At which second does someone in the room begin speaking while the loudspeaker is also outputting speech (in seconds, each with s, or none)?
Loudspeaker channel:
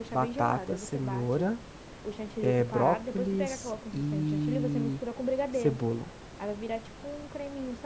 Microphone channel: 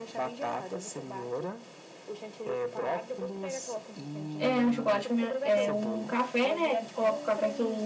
4.4 s